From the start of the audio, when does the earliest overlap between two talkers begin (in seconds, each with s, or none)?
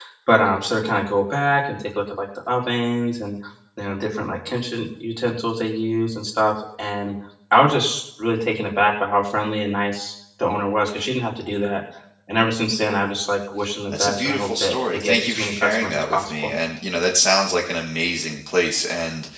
13.9 s